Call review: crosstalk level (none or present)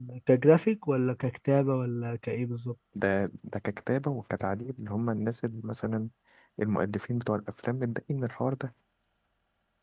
none